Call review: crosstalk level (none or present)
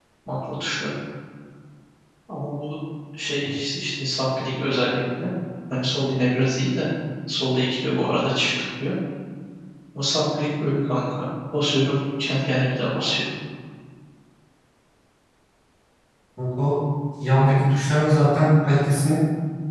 none